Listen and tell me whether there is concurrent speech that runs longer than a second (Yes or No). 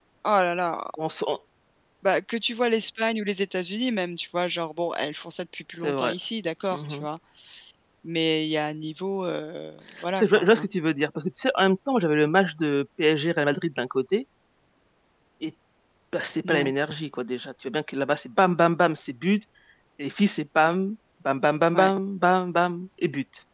No